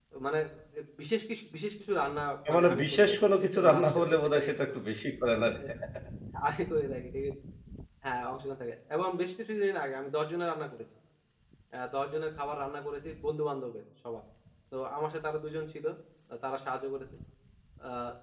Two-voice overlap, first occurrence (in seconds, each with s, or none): 2.5 s